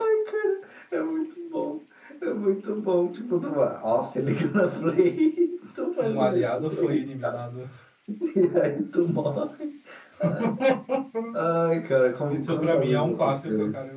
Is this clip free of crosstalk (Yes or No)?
No